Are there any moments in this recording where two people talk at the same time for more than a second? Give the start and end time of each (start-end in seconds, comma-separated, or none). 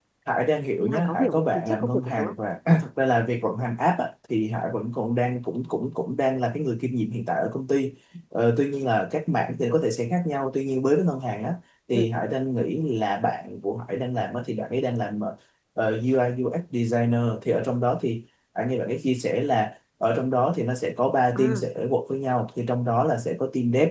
0.8-2.3